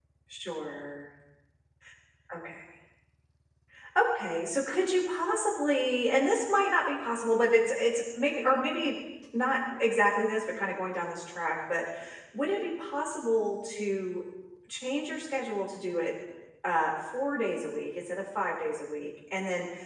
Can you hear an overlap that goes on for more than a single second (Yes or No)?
No